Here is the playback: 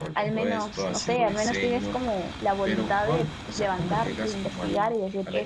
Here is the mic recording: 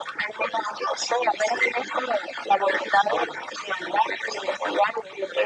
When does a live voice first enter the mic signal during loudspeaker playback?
none

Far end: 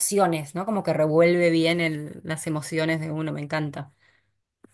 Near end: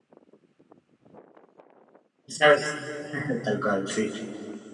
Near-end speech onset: 2.3 s

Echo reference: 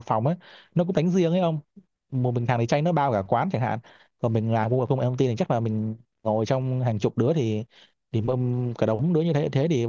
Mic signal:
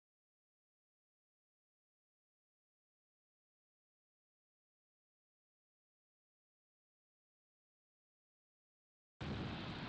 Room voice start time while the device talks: none

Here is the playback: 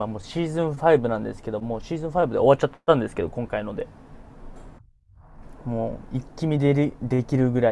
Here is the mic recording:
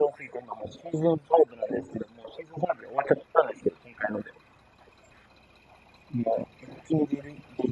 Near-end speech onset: none

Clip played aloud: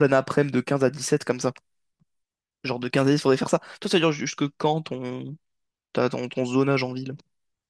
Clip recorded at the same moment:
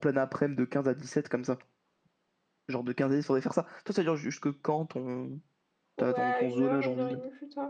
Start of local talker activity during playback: 6.0 s

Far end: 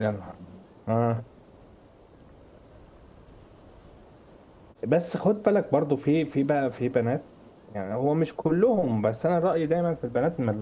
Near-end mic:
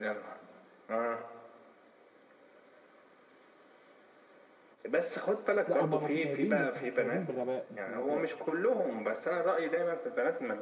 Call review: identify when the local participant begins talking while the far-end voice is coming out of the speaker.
5.7 s

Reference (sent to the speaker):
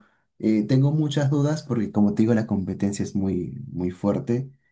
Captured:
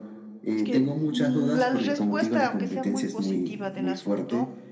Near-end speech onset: 0.5 s

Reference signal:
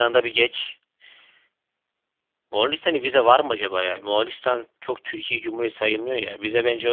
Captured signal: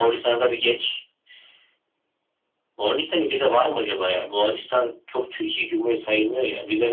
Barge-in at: none

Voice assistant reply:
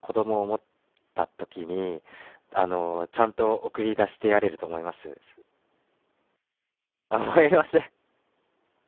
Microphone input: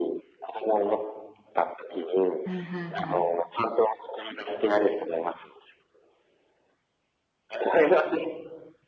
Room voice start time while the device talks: 2.4 s

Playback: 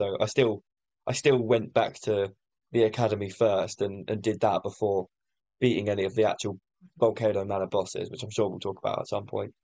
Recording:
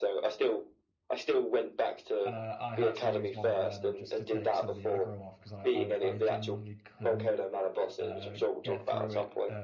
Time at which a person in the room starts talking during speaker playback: 2.2 s

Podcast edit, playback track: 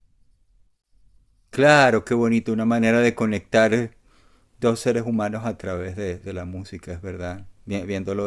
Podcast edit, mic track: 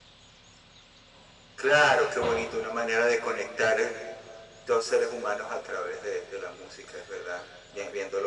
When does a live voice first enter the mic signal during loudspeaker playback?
none

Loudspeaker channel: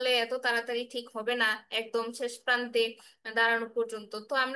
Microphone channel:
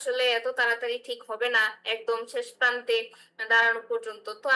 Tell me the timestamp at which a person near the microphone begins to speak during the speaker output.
none

